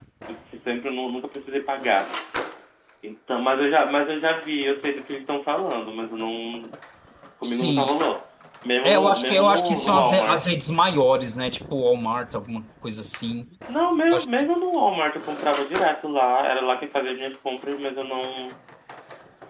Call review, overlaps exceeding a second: present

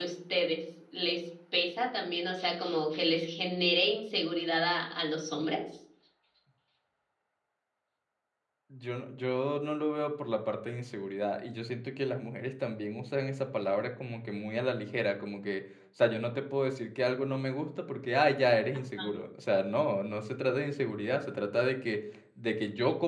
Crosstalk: none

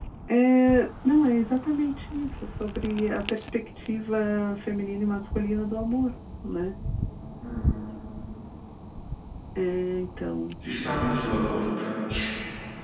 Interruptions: none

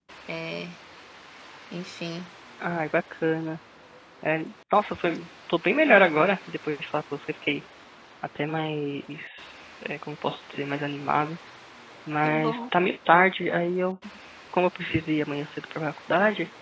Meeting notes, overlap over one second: none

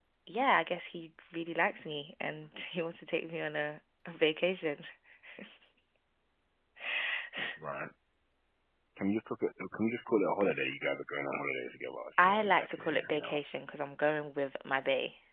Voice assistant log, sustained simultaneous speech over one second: present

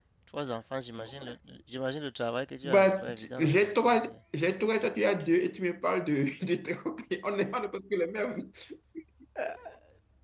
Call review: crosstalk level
present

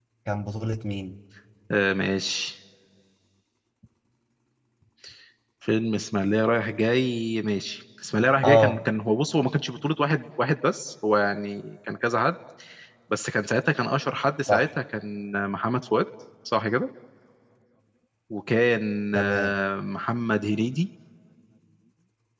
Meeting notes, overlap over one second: none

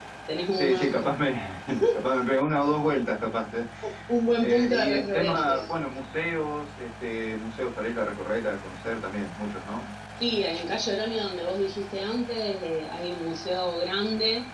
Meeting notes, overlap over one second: present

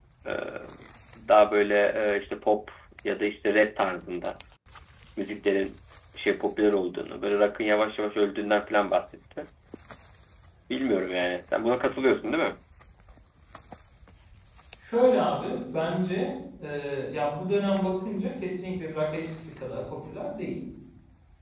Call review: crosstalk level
none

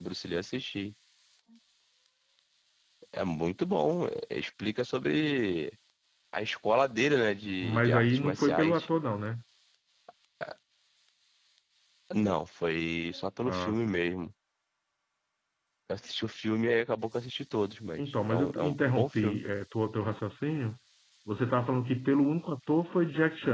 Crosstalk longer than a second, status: present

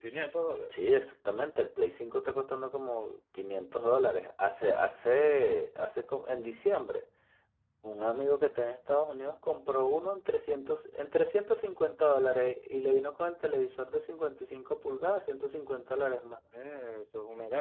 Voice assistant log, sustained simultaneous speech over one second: none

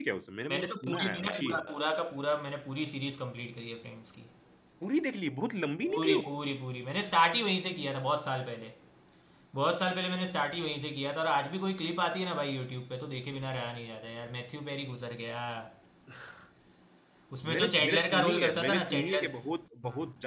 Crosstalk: present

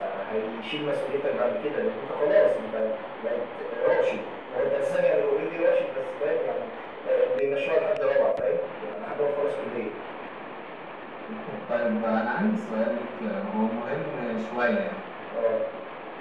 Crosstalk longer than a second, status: none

